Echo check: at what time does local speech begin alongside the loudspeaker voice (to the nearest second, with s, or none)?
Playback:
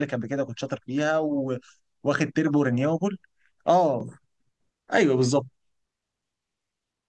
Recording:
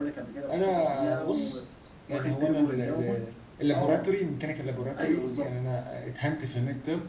0 s